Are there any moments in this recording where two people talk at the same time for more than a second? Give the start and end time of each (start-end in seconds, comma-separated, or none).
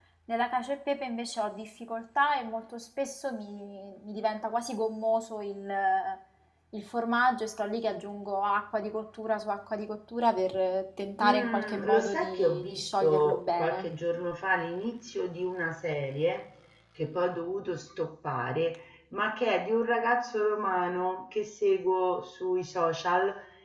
11.2-13.9